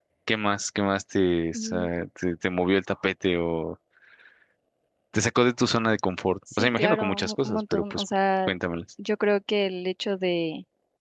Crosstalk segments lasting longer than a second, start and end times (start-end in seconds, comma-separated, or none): 6.5-8.0